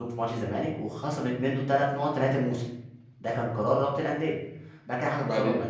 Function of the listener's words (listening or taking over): listening